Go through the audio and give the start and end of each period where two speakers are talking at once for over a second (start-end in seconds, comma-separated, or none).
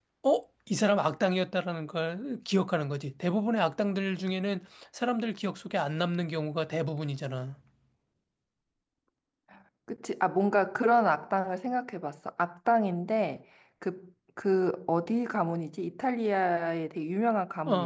none